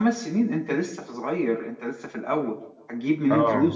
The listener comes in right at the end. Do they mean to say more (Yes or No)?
No